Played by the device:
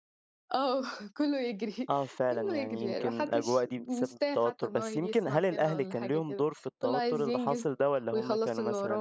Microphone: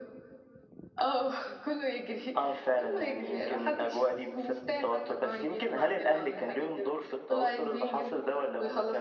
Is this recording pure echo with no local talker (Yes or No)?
Yes